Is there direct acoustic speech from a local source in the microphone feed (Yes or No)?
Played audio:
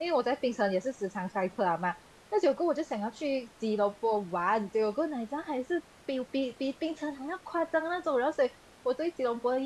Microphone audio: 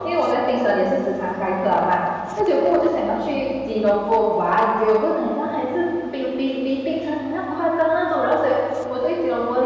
No